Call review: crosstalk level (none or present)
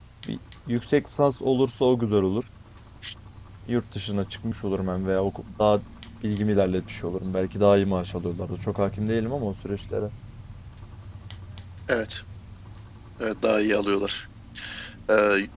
none